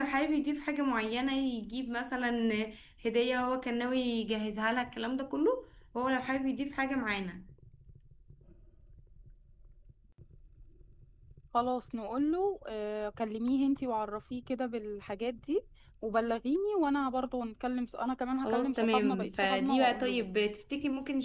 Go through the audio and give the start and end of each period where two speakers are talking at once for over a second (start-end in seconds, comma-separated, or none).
18.4-20.2